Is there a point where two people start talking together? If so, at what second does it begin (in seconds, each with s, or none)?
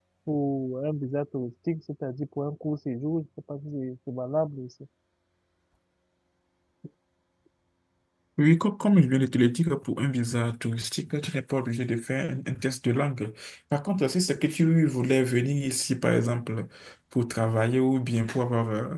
none